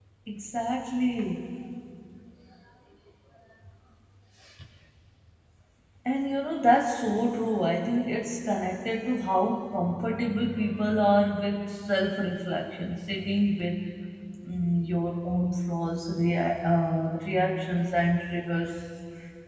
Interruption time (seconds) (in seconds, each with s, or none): none